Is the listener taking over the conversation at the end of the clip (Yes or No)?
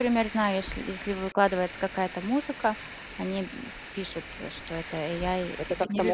Yes